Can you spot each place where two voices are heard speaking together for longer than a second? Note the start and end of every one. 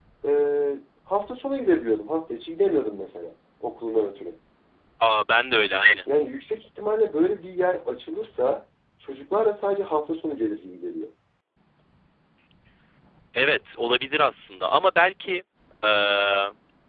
none

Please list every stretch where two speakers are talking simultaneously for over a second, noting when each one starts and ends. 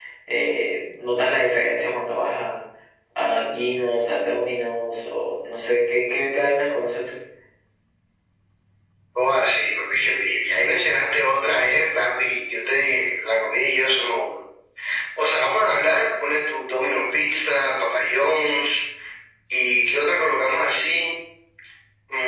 none

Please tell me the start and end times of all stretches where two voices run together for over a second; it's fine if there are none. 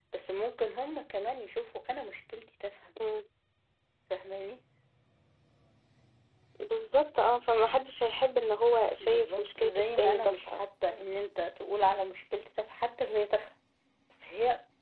9.0-10.6

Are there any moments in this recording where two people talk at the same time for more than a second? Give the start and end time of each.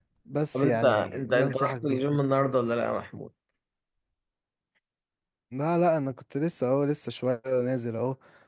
0.5-2.0

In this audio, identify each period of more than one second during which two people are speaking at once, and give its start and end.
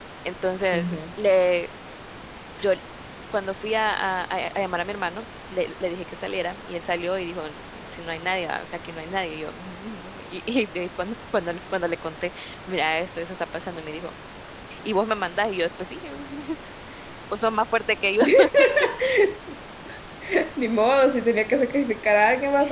none

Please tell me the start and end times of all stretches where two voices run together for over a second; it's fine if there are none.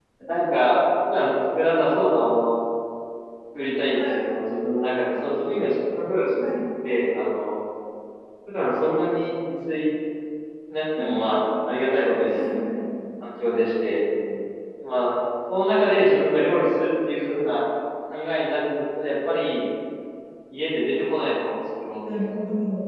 none

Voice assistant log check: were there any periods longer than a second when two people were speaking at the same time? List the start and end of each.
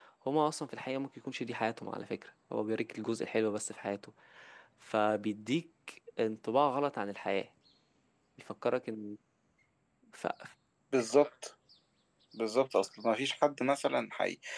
none

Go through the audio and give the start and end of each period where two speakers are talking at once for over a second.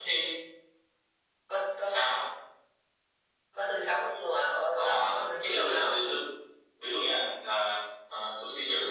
4.8-6.0

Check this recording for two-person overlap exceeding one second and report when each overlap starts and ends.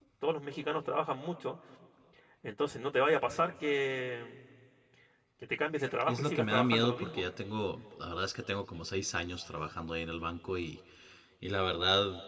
6.0-7.2

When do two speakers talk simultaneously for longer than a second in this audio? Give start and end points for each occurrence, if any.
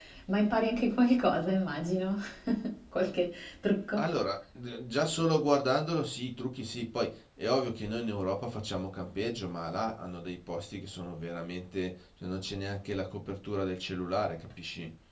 none

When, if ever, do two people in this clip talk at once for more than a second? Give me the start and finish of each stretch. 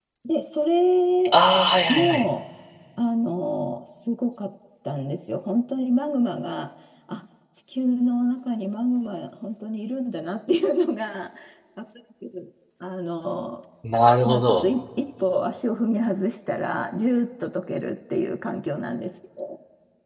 none

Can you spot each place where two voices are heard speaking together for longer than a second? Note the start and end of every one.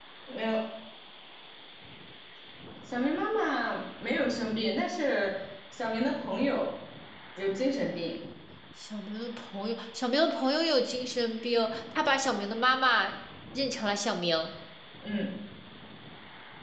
none

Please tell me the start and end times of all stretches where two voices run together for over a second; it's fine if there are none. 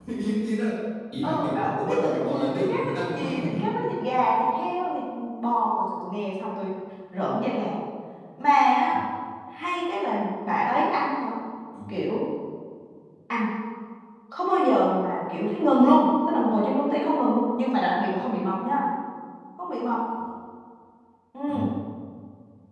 1.2-3.6

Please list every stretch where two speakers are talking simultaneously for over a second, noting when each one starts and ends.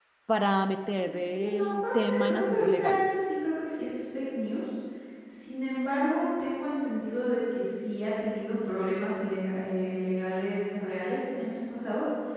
1.3-3.1

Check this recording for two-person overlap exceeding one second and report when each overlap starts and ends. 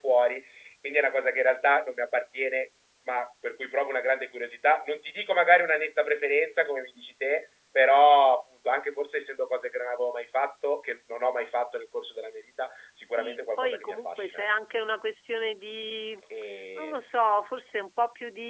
13.1-14.5

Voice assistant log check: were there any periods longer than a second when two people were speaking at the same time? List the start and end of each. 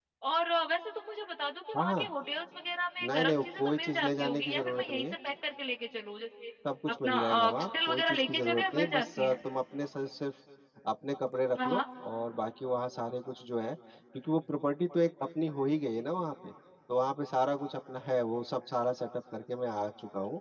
3.1-5.1, 6.9-9.3

